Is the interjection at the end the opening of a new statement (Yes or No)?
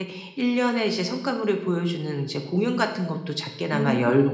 No